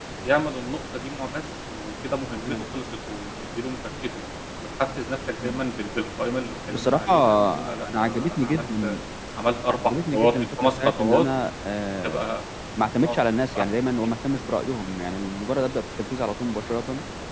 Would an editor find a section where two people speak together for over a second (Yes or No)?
Yes